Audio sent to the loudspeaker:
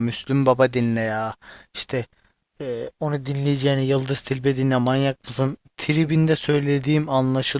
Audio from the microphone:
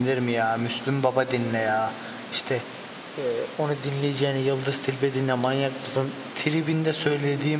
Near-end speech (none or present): none